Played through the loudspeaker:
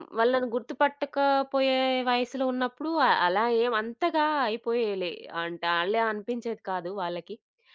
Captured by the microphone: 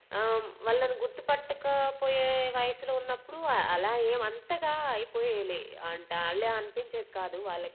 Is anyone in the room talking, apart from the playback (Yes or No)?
No